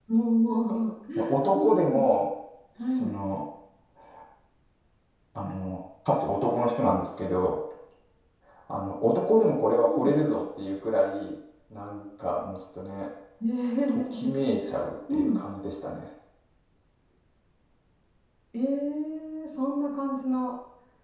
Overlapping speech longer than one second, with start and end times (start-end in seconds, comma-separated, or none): none